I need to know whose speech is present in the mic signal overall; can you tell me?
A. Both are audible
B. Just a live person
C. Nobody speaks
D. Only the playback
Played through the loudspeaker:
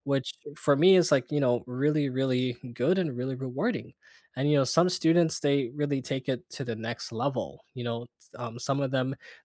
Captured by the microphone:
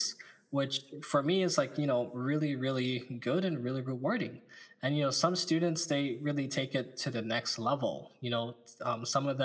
D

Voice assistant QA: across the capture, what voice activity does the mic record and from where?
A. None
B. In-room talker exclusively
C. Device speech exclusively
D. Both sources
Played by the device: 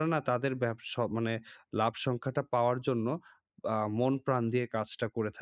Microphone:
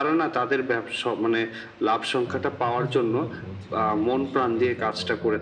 D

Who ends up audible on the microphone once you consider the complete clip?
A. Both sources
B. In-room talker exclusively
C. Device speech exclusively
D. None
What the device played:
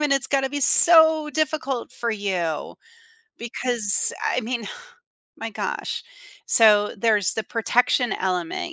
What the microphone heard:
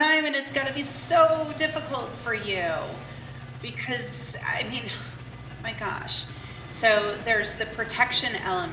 C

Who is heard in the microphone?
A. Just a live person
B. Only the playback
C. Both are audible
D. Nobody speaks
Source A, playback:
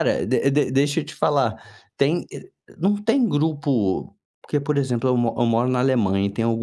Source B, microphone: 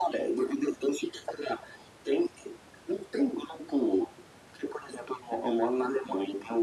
B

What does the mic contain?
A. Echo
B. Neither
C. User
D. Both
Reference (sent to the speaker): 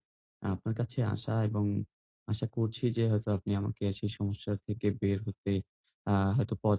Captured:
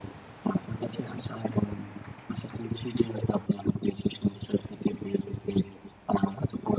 A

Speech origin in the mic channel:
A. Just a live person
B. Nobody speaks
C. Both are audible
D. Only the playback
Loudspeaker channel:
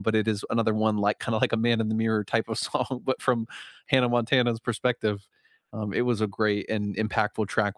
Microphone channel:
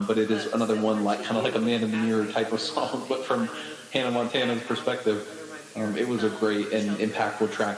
C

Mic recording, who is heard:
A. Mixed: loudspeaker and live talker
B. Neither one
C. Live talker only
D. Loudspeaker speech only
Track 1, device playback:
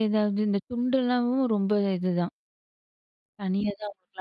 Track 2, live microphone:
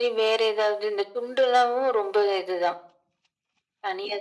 D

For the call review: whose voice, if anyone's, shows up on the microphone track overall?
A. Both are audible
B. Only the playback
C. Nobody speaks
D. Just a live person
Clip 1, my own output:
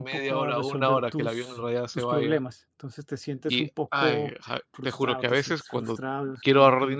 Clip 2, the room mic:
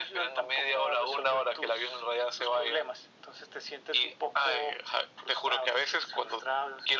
B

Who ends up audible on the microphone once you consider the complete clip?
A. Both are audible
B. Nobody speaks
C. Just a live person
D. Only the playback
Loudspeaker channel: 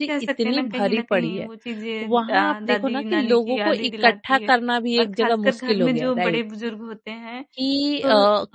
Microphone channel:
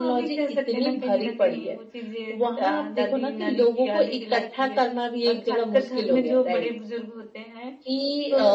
D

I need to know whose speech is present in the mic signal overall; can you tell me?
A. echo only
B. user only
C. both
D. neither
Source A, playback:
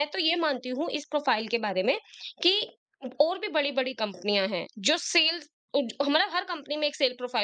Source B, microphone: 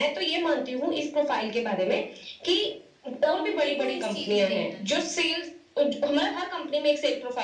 C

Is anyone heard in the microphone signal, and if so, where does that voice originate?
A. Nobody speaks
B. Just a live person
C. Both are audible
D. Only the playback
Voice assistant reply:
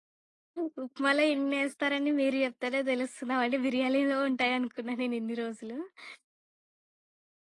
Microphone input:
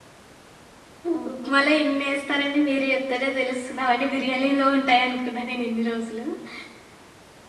C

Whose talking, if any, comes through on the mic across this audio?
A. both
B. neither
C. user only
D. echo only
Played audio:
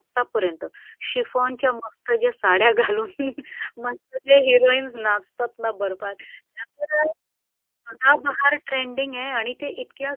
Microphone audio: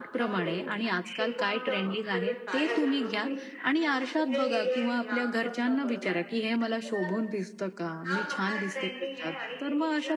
A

